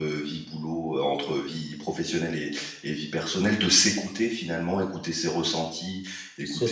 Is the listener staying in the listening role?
Yes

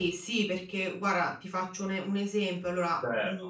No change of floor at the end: Yes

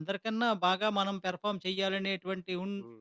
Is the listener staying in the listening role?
Yes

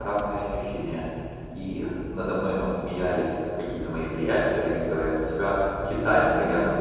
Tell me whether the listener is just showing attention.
Yes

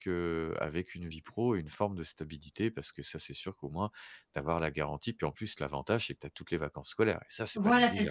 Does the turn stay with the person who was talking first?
No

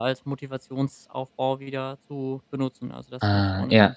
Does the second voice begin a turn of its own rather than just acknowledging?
Yes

